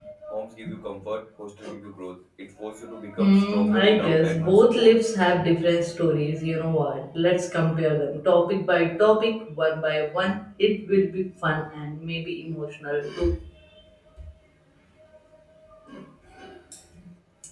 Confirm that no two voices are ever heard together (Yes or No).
No